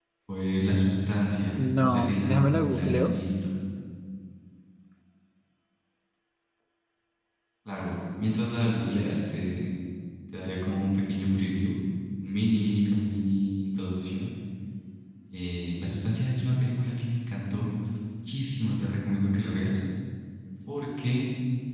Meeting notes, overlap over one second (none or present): present